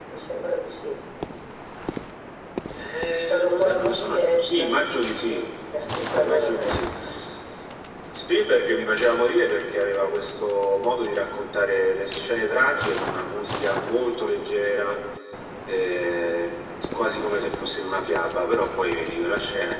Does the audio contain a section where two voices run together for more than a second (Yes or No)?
Yes